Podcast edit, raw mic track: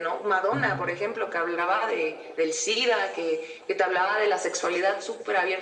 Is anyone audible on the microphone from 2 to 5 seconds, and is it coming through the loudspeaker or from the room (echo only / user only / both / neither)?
echo only